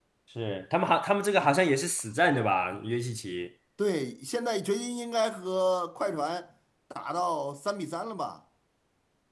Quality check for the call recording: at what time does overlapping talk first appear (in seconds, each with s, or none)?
none